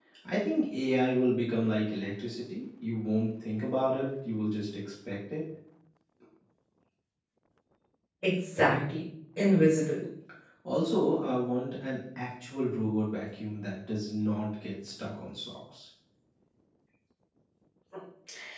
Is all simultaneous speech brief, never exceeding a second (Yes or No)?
Yes